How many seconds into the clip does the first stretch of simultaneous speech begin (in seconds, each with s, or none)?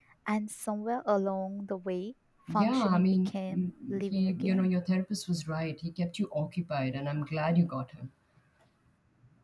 2.5 s